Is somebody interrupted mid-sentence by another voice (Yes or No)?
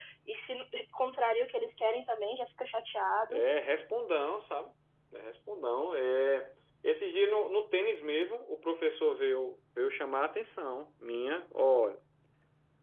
No